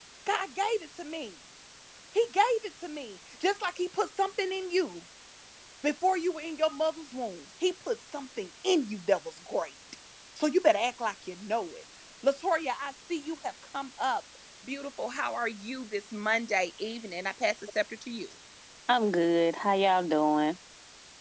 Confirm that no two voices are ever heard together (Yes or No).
Yes